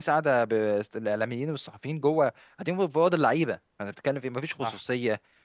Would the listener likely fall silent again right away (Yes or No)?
Yes